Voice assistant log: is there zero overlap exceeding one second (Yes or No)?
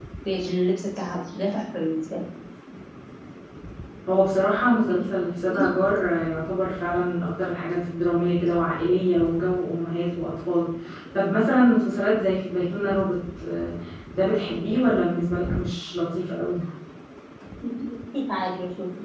Yes